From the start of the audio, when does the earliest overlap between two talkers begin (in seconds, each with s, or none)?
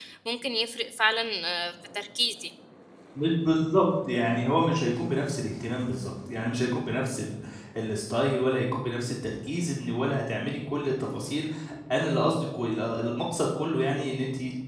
none